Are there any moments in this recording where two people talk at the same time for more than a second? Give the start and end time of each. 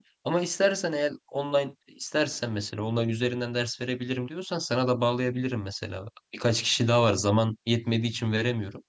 none

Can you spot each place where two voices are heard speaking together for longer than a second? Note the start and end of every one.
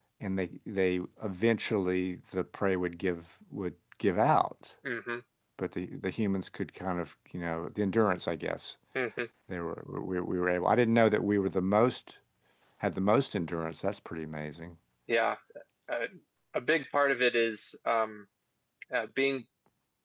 none

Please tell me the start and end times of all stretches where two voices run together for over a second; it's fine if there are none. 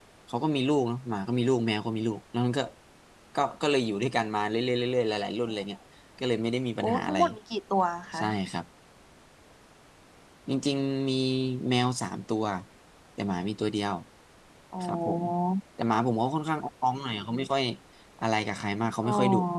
none

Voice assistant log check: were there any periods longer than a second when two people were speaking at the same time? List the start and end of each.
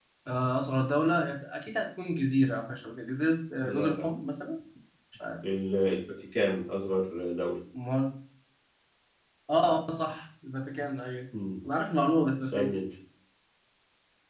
none

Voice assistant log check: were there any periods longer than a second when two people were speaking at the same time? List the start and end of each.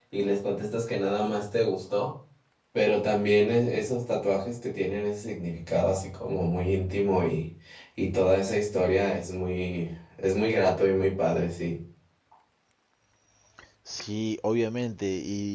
none

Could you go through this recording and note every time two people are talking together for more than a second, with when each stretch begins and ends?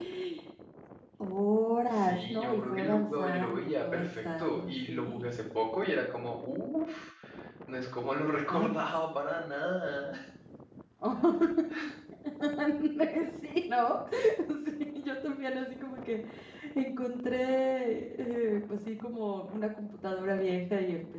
2.0-5.3

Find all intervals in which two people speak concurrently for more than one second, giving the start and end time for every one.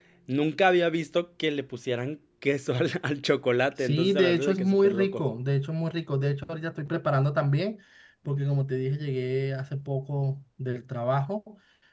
3.8-5.2

